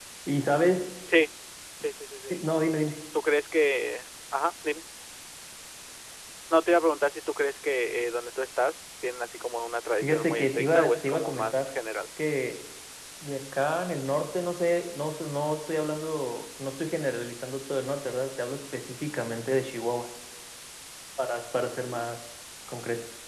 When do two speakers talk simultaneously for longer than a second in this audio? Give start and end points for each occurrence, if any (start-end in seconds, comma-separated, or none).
10.0-11.7